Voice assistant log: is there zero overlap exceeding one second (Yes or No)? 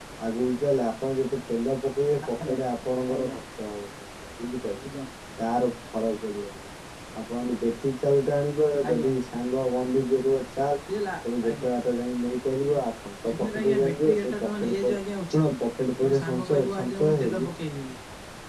No